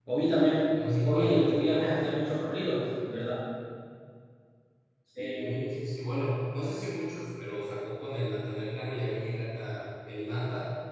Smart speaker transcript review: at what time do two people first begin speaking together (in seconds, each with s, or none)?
0.7 s